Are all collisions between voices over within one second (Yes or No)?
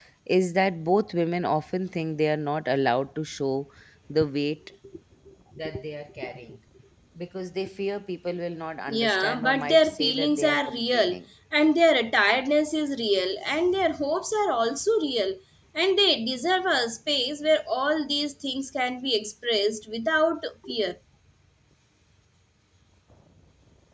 No